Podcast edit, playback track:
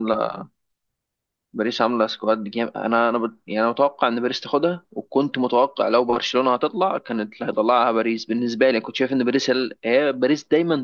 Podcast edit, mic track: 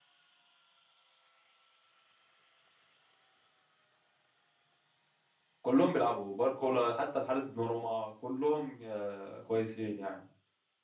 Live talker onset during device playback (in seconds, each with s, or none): 5.6 s